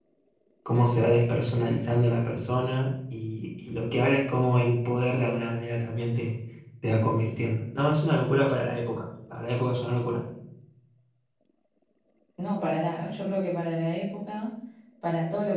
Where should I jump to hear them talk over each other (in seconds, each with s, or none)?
none